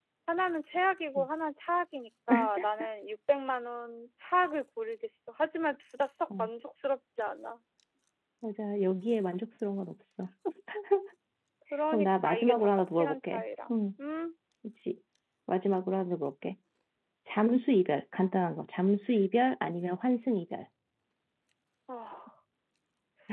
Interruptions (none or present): present